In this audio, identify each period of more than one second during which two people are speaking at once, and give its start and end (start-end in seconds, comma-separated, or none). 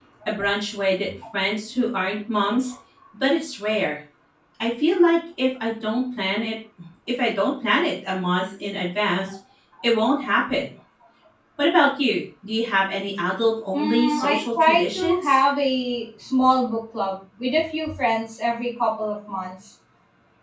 13.7-15.4